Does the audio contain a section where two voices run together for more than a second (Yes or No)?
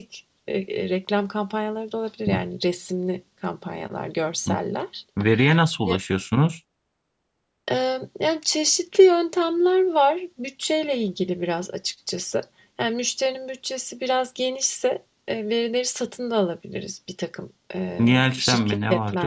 Yes